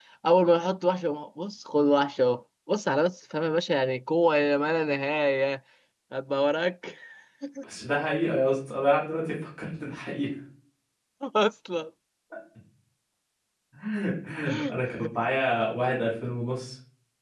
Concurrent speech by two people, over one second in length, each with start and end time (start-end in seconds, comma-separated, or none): none